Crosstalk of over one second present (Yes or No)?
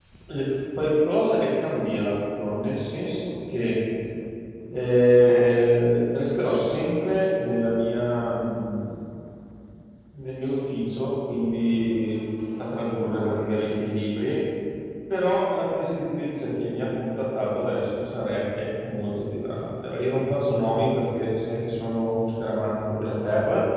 No